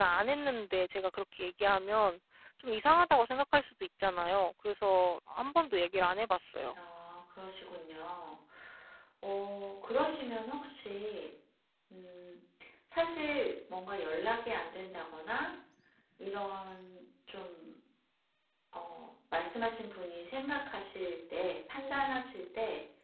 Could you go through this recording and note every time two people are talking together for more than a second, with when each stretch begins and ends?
none

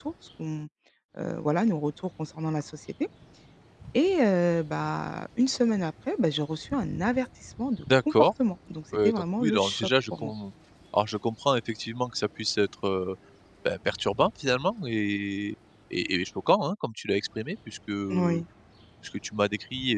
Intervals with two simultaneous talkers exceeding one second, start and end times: 9.0-10.3

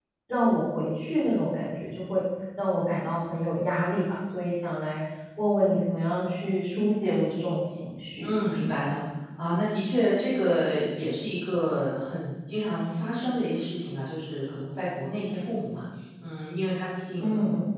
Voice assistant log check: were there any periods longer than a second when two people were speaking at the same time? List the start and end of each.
none

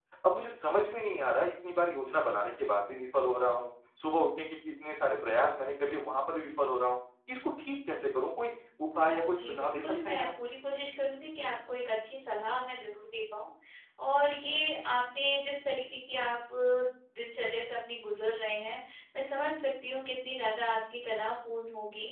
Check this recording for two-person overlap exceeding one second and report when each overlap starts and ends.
8.9-10.3

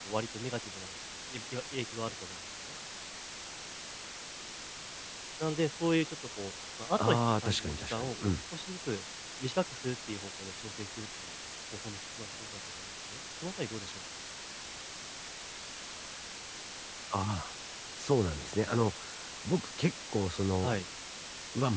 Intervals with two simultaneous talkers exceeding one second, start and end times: 7.0-8.4

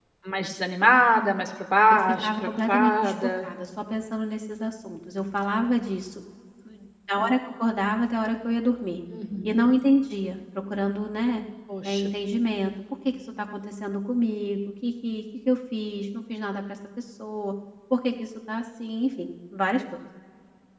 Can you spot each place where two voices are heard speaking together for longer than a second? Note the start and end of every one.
1.9-3.5

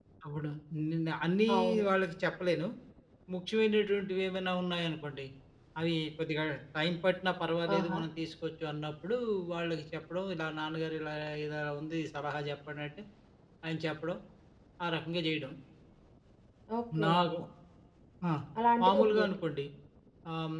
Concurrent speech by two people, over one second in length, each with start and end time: none

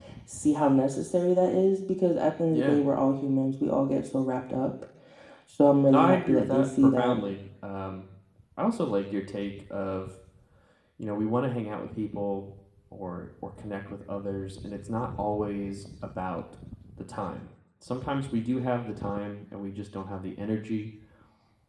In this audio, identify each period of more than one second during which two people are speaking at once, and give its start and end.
5.9-7.2

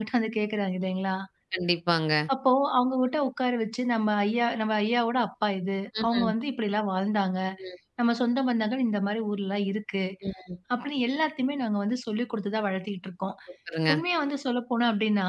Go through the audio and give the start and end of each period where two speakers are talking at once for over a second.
none

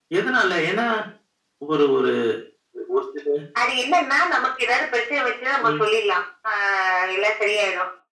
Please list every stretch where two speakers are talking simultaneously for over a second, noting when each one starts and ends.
none

